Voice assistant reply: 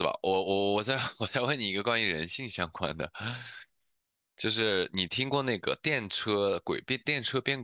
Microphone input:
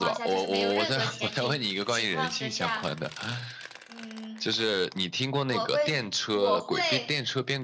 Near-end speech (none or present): present